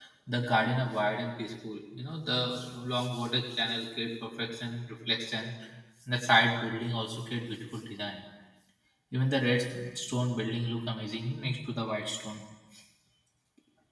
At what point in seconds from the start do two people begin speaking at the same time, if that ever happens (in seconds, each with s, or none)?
none